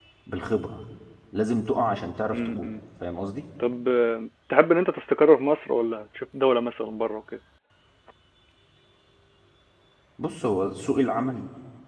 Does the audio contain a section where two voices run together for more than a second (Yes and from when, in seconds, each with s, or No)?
No